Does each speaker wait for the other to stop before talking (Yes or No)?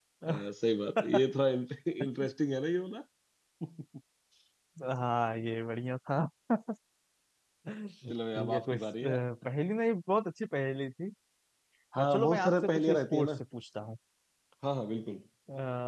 No